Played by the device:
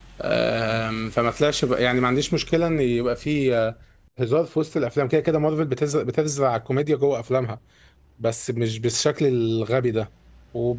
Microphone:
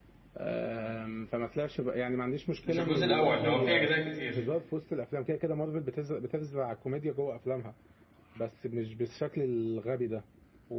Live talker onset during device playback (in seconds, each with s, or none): 2.6 s